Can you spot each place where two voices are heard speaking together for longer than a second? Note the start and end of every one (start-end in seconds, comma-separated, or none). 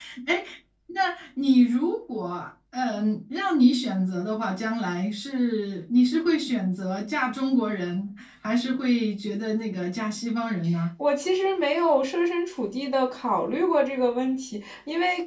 none